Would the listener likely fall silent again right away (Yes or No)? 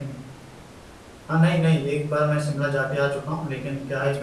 Yes